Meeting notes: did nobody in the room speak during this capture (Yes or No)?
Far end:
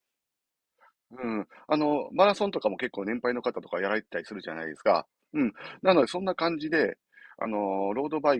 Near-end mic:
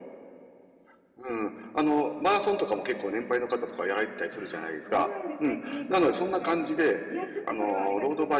No